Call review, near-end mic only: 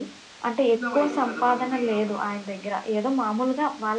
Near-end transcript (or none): చిన్న వయసు గదా! మనకి. అవును.